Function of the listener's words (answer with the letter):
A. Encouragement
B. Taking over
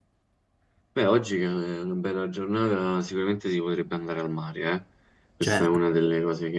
A